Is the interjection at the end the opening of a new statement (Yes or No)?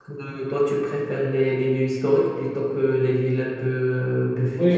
Yes